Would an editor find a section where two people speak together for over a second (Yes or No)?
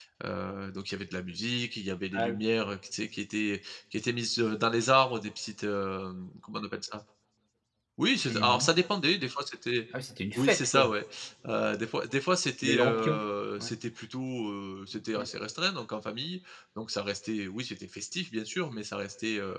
No